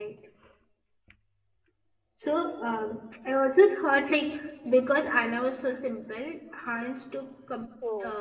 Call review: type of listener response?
listening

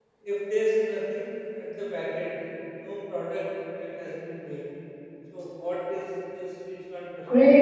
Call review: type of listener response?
taking over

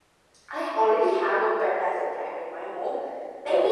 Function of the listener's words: listening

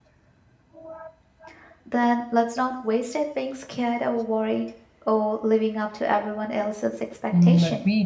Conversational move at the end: taking over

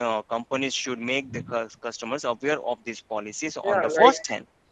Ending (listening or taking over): taking over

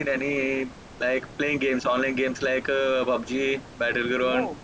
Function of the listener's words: listening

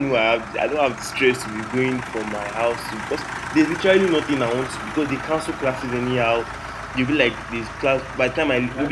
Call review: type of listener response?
listening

